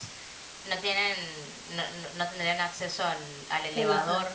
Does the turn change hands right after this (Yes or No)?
No